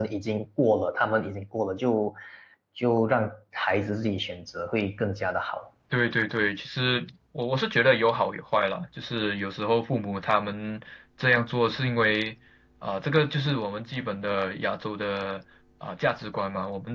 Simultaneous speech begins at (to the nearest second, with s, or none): none